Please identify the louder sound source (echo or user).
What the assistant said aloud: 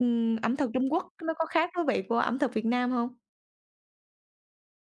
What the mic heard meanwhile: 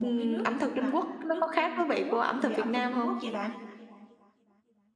echo